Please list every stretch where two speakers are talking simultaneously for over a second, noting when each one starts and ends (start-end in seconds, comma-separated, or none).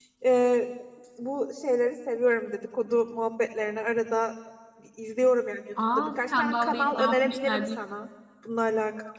6.0-7.7